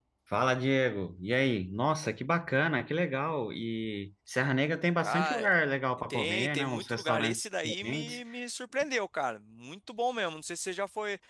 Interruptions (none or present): present